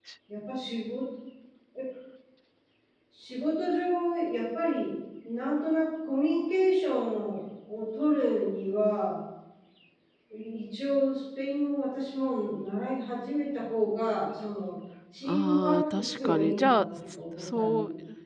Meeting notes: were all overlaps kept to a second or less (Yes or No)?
No